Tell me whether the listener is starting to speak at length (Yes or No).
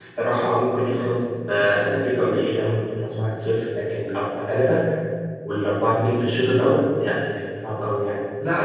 Yes